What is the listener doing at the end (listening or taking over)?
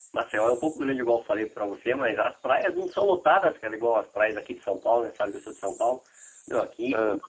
listening